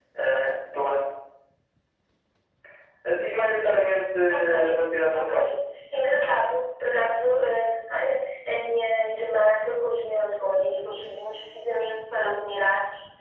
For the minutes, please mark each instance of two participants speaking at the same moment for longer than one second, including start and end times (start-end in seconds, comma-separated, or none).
none